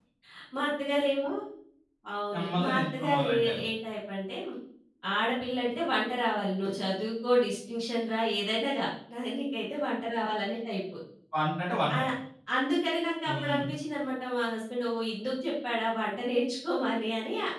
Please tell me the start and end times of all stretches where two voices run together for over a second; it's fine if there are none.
2.3-3.6

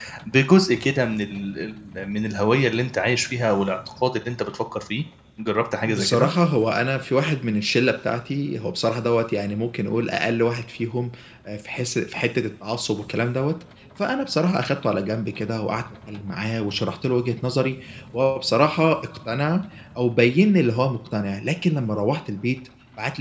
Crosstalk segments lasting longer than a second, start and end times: none

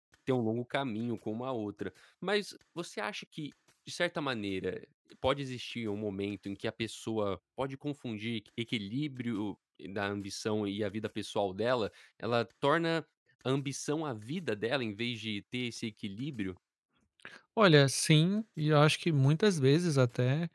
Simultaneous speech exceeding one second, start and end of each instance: none

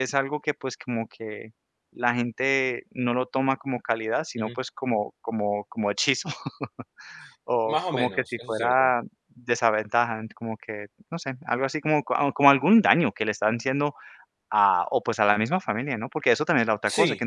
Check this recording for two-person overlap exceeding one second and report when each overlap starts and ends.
7.7-8.9

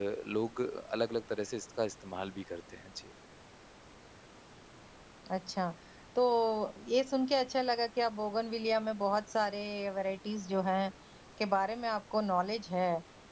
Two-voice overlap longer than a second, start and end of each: none

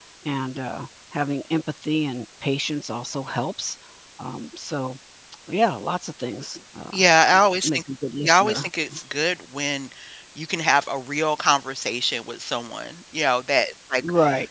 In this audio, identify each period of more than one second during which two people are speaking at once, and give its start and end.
none

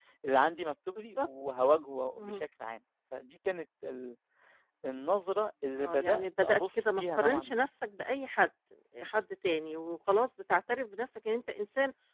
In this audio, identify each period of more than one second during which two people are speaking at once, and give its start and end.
5.8-7.6

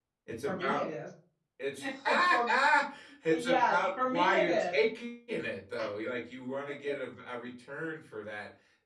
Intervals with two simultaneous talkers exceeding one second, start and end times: 3.3-4.8

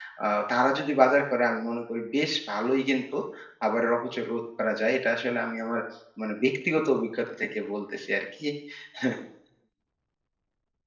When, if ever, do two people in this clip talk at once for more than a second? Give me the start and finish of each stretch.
none

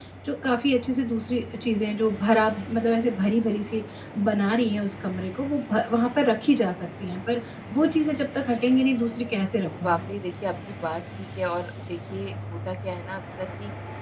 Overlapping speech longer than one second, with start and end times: none

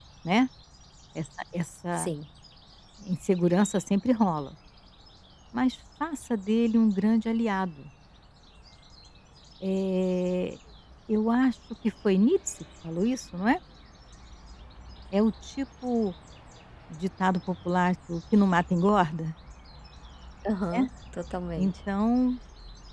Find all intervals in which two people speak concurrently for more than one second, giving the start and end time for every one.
none

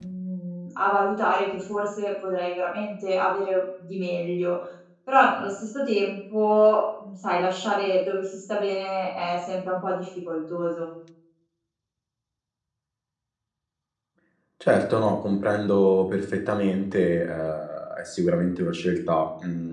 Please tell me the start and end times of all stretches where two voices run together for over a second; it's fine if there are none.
none

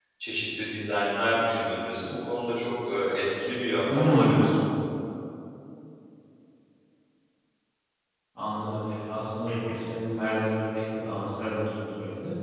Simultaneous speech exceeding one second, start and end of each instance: none

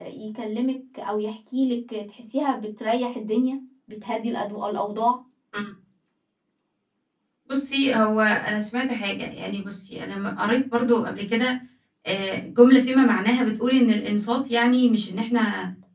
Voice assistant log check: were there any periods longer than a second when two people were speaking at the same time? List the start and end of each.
none

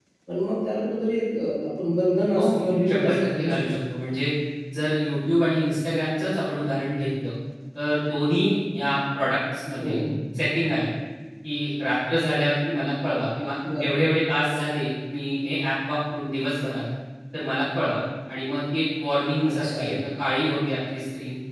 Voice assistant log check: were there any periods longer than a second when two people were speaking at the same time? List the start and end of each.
2.4-3.6

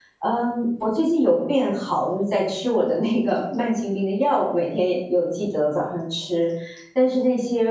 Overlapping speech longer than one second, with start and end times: none

